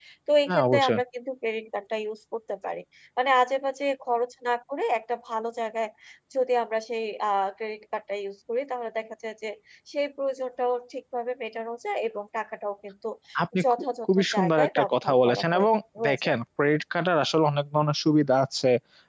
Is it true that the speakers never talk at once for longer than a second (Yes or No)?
No